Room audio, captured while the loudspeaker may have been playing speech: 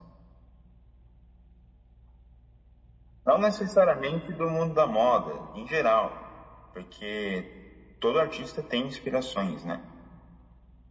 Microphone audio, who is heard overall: echo only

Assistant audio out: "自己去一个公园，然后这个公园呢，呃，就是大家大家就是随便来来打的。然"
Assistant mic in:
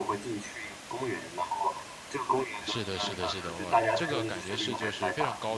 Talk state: both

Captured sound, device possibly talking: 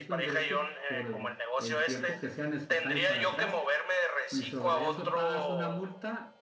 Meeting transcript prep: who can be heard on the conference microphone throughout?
both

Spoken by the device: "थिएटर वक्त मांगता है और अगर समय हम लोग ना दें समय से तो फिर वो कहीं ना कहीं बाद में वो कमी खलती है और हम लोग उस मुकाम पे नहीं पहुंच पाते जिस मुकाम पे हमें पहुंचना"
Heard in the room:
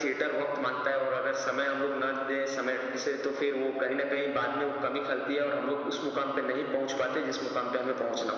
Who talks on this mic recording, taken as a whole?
echo only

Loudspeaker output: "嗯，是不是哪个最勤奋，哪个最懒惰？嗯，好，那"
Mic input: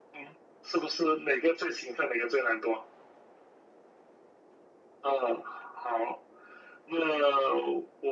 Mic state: echo only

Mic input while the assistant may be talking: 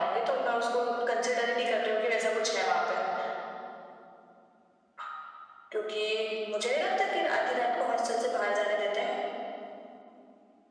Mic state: echo only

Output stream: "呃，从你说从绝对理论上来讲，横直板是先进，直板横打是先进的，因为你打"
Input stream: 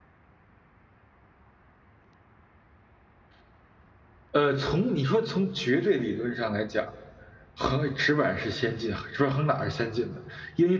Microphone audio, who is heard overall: echo only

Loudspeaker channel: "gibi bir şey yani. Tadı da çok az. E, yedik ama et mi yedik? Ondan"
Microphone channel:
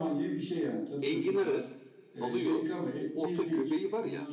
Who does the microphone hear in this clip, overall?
both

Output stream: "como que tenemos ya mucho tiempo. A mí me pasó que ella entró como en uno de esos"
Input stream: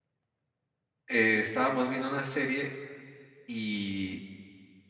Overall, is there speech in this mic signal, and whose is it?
user only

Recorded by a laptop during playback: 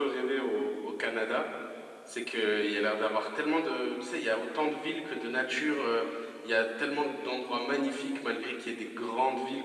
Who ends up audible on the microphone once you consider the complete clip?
echo only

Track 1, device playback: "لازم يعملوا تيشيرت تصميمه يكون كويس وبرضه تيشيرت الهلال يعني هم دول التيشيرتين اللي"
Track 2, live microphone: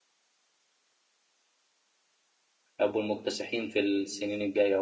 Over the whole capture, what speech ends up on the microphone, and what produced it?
user only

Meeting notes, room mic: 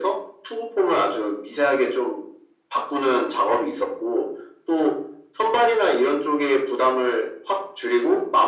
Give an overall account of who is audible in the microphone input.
echo only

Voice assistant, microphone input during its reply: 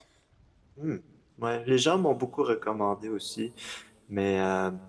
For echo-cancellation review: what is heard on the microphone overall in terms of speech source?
user only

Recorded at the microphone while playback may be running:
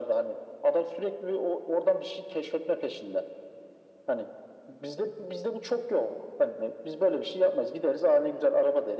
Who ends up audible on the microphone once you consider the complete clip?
echo only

